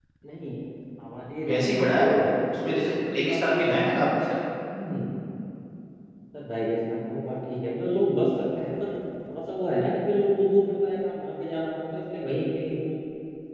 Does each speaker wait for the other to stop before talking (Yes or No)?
No